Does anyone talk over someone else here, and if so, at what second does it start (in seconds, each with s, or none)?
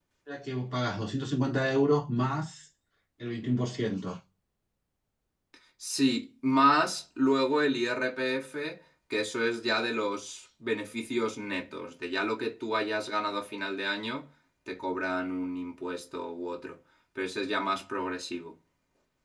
none